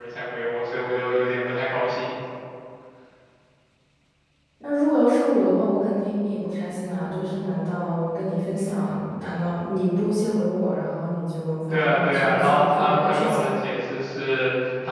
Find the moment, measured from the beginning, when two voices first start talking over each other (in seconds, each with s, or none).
11.7 s